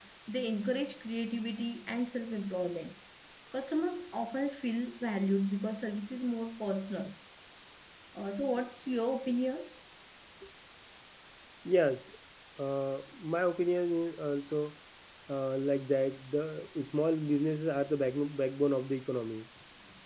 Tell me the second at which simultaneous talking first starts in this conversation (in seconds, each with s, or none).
none